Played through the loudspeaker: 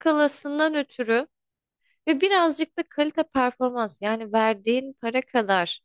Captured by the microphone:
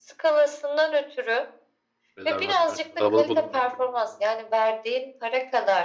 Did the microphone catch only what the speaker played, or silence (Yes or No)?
No